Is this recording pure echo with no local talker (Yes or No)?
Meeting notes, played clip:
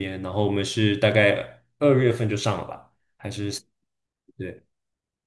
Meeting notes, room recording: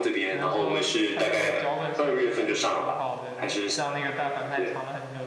No